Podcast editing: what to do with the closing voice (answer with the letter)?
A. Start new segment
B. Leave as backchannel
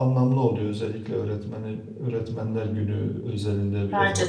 B